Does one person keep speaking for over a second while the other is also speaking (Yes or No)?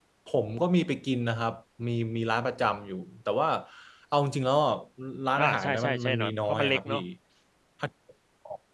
Yes